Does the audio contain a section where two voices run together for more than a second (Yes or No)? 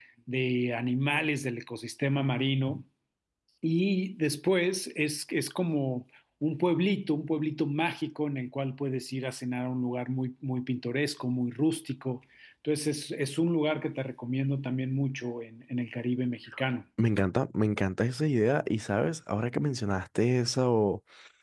No